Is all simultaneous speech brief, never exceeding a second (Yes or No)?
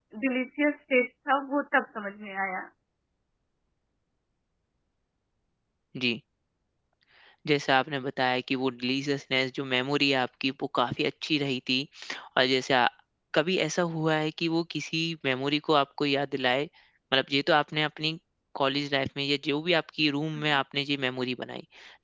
Yes